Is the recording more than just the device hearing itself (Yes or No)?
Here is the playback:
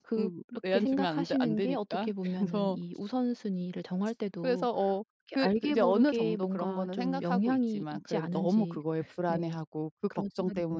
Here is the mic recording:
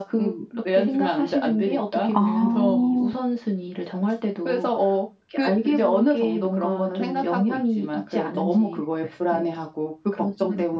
Yes